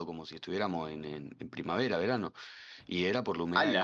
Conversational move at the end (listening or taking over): listening